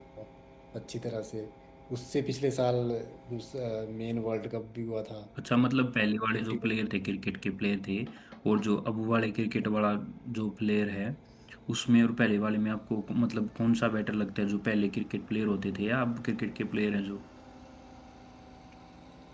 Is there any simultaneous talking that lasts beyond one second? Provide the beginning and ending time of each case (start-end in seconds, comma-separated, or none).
none